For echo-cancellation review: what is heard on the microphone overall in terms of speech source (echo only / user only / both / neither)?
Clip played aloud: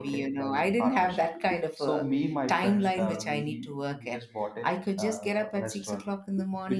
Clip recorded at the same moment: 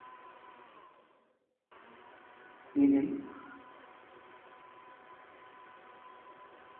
user only